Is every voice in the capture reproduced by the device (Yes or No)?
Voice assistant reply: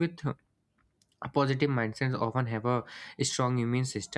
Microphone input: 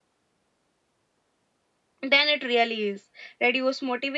No